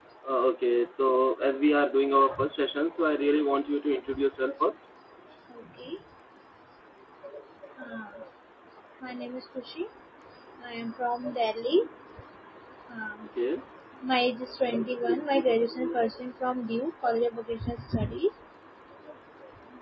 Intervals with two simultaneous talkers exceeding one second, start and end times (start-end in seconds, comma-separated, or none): none